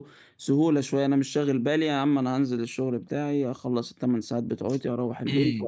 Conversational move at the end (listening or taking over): taking over